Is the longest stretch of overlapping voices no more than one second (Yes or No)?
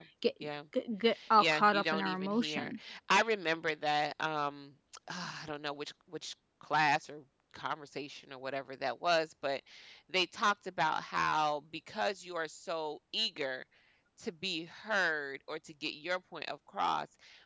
No